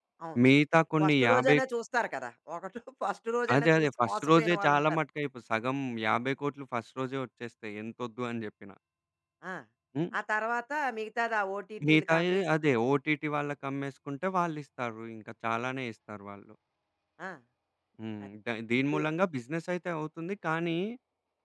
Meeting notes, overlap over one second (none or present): present